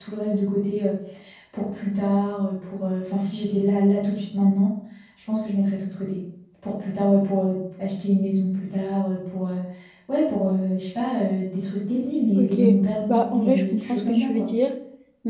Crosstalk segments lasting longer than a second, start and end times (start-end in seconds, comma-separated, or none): 13.1-14.5